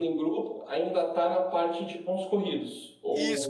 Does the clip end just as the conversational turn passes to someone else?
Yes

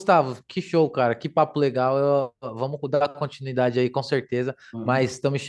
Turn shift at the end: No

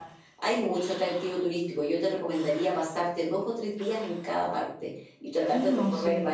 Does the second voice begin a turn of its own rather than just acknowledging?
No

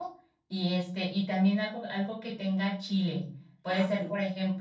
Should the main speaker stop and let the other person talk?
No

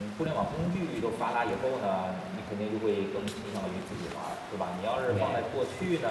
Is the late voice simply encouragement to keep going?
Yes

